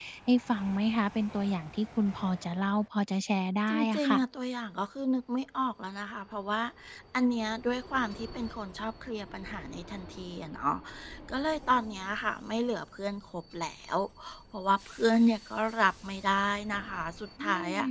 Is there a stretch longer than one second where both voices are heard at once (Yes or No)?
No